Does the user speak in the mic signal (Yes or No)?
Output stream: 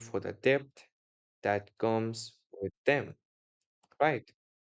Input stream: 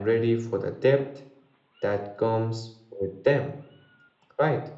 No